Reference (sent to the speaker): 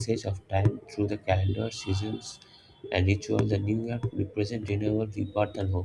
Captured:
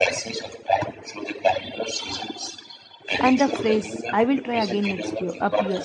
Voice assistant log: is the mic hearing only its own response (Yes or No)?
No